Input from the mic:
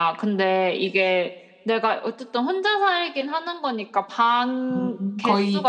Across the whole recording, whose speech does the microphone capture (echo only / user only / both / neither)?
both